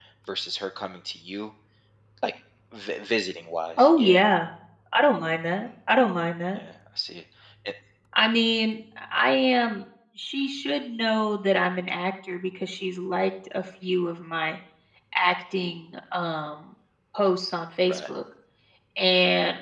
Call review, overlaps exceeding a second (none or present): none